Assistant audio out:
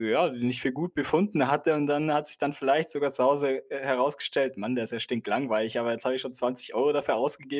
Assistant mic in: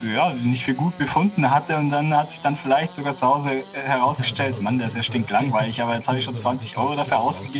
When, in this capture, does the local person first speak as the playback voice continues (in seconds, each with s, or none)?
4.0 s